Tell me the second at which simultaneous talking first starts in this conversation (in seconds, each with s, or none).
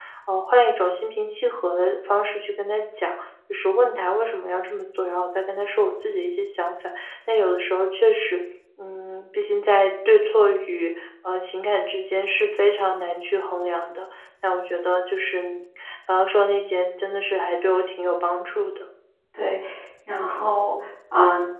none